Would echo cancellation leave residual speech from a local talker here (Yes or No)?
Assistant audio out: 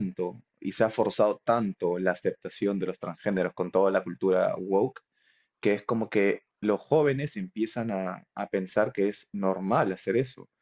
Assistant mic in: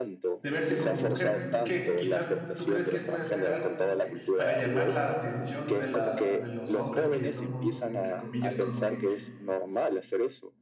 Yes